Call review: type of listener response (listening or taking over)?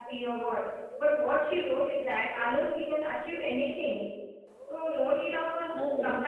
listening